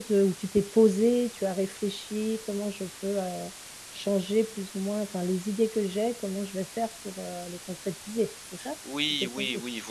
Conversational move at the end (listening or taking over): taking over